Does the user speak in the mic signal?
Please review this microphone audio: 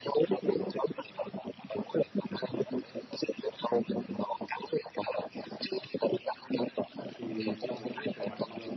Yes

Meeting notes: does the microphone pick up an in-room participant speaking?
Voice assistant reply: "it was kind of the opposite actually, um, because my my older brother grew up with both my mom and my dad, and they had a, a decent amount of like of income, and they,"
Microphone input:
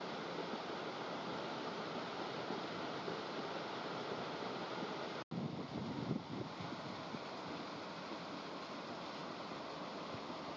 No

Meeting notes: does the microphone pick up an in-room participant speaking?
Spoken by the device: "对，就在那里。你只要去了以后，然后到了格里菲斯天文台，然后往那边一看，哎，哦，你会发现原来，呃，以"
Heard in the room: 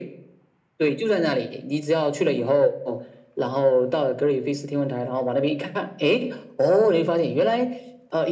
No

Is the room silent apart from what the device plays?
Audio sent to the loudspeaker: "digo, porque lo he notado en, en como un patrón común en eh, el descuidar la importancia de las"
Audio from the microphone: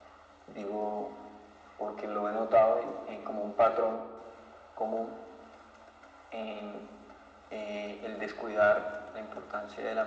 Yes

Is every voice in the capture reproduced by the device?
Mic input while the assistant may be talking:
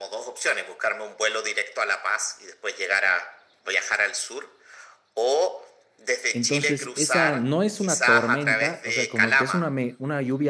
No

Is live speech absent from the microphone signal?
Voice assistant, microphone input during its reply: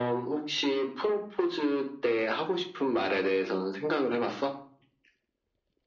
Yes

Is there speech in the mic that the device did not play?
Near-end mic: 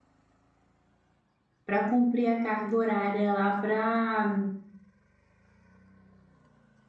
Yes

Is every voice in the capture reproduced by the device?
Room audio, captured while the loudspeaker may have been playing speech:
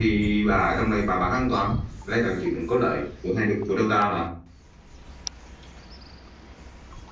No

